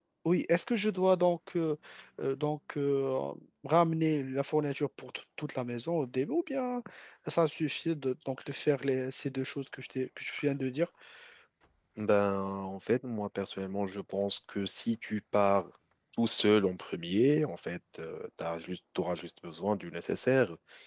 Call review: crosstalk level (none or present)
none